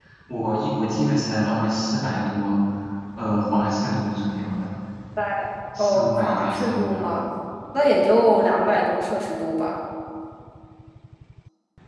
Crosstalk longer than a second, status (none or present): present